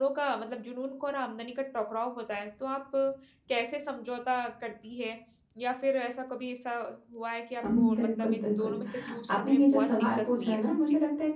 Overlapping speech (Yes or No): Yes